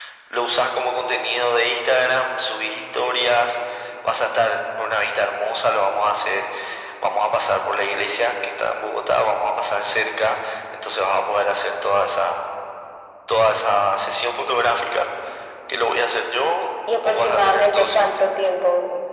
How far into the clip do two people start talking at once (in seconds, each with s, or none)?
16.9 s